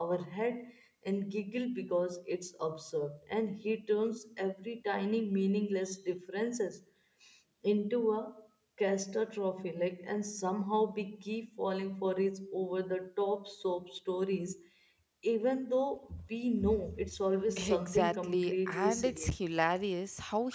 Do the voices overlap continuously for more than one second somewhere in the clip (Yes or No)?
Yes